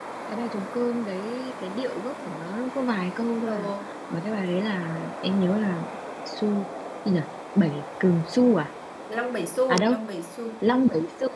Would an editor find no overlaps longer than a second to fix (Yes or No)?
Yes